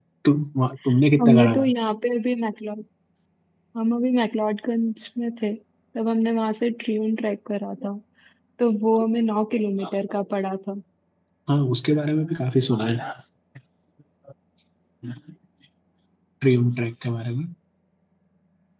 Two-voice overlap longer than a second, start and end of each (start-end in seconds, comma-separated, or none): none